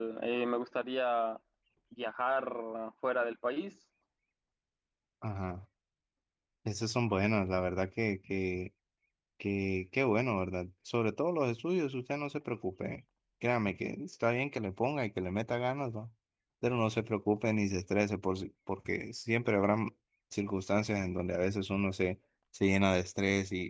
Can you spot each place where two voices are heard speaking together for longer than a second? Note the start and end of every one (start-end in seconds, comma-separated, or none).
none